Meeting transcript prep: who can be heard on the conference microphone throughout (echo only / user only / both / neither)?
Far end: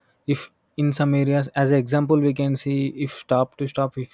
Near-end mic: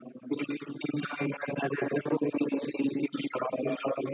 echo only